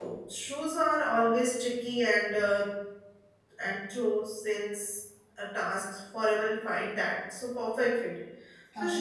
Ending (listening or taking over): listening